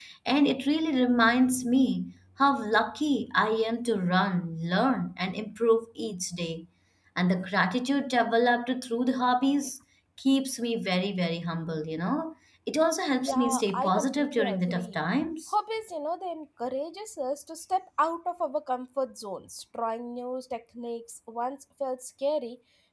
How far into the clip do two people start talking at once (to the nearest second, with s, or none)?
13 s